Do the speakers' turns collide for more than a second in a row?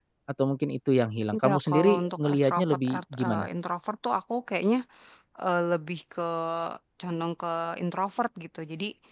Yes, from 1.3 s

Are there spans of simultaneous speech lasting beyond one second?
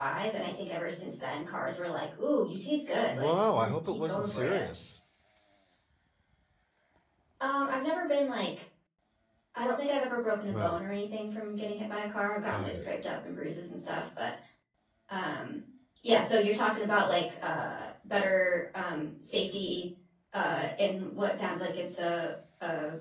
Yes, from 3.1 s

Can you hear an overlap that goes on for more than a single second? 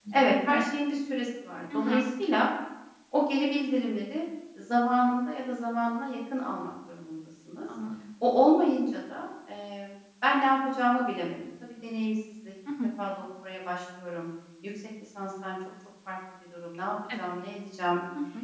No

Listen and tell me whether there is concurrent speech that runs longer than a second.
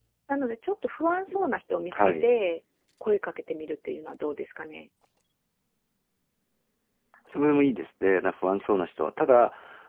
No

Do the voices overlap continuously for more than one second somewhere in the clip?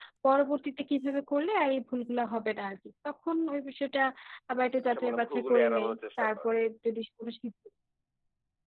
Yes, from 4.8 s

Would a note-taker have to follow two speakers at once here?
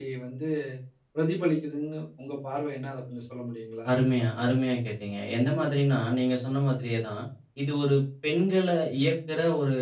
No

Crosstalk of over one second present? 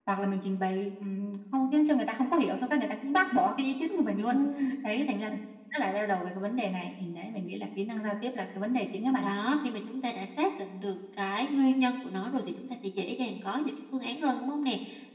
No

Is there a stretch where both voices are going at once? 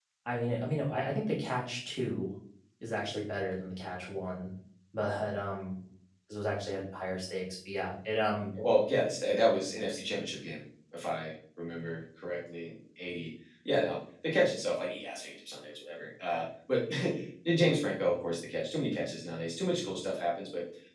No

